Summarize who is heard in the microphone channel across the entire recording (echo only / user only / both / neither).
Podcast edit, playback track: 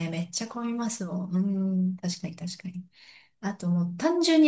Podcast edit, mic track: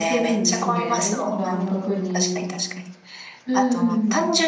both